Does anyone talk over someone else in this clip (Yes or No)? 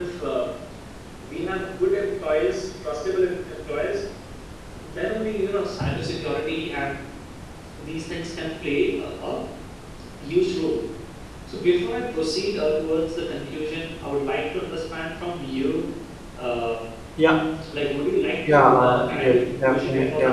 Yes